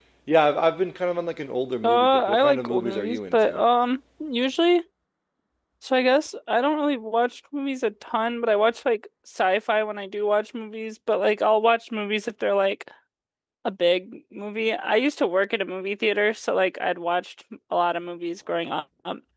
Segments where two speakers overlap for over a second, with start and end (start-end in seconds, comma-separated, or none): 1.8-3.6